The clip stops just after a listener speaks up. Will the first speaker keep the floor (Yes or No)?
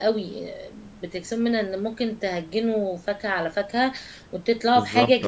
Yes